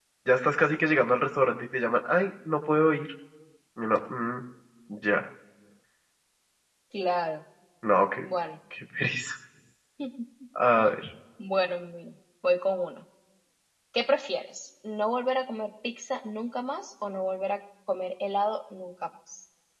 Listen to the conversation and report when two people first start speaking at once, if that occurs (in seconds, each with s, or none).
none